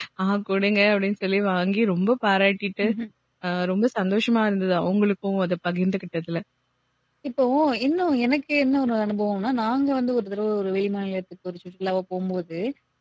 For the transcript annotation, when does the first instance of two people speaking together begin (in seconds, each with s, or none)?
none